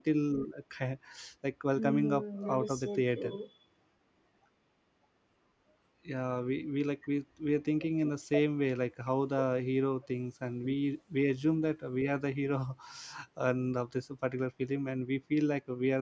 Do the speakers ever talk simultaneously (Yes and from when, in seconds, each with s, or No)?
Yes, from 1.8 s